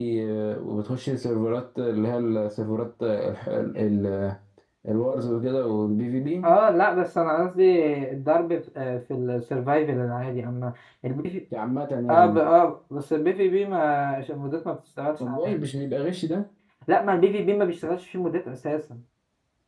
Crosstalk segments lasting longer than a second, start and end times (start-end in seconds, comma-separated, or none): none